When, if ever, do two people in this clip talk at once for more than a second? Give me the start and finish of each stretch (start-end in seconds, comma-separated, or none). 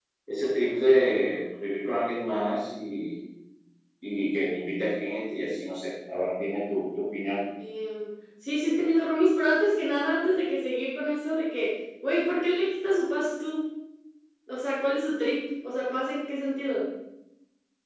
none